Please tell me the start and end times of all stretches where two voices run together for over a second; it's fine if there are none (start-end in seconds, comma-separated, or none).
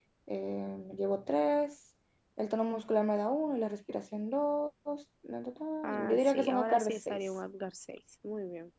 5.8-7.2